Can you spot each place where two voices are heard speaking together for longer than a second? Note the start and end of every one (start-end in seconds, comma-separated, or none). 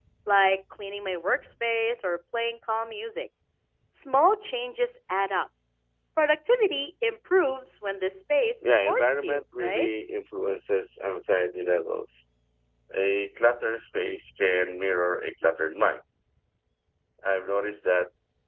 8.6-9.9